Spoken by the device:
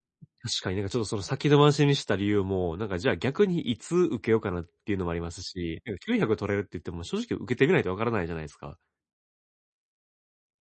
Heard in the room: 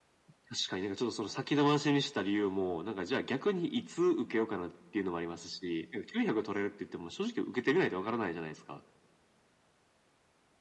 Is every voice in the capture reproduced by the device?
Yes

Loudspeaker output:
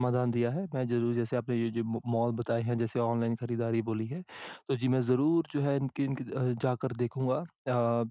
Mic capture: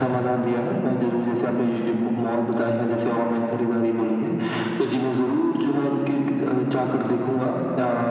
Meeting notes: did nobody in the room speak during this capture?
Yes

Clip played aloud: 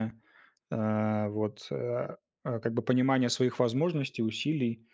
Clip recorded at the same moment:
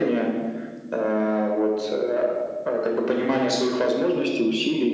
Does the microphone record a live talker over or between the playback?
No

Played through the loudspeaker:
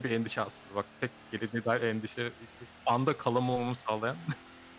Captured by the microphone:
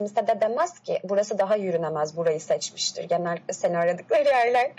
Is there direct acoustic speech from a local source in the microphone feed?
Yes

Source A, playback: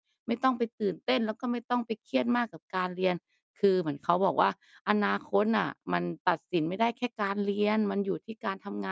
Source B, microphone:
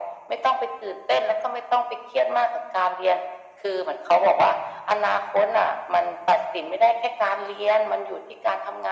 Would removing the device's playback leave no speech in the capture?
Yes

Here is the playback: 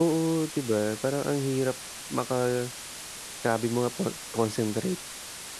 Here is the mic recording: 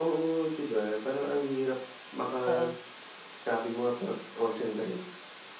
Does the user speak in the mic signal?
Yes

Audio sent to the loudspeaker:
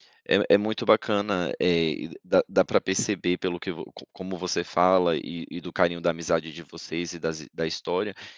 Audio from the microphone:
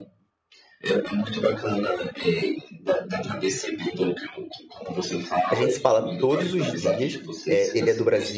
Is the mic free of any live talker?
No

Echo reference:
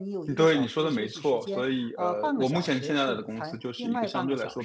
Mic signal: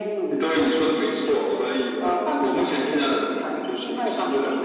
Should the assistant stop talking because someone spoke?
No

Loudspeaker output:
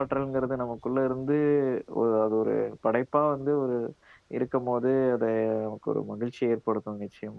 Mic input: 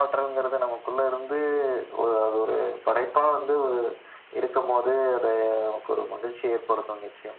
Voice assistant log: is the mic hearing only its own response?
Yes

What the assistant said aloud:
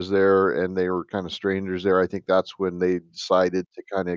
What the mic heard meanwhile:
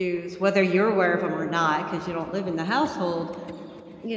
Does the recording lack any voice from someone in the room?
No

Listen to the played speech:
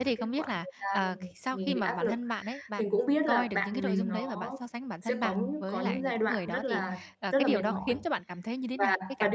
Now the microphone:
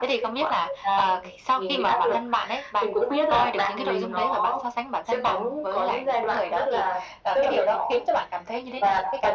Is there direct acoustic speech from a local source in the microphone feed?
No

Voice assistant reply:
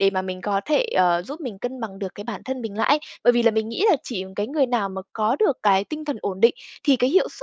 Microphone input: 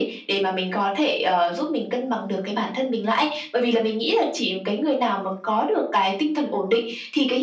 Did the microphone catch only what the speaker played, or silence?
Yes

